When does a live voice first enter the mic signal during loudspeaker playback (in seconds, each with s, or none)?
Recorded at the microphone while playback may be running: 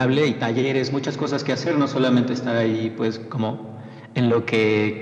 none